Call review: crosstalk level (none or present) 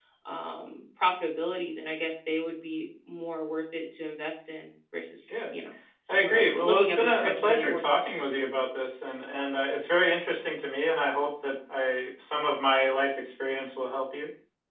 present